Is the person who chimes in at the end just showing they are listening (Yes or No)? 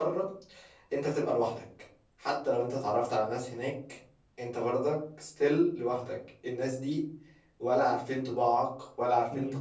Yes